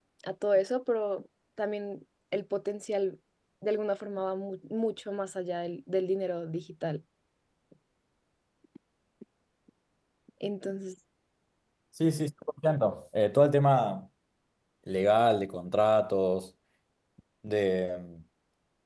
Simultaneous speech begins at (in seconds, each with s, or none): none